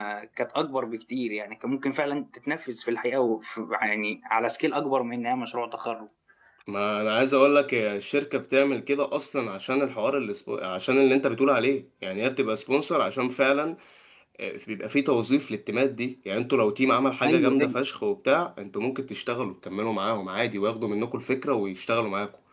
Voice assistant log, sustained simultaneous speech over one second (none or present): none